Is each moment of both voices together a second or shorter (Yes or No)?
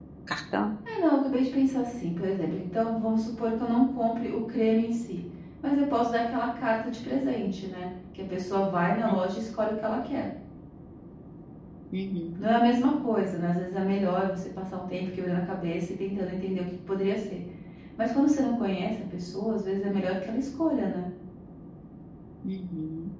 Yes